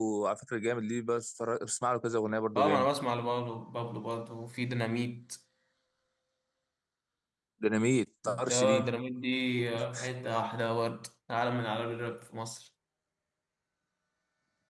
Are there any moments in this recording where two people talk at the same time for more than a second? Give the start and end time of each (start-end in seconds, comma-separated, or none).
none